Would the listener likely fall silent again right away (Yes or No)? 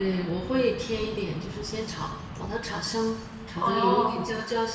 Yes